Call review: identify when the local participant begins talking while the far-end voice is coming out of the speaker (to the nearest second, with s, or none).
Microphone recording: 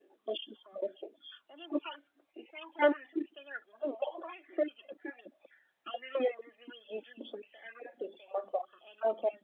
none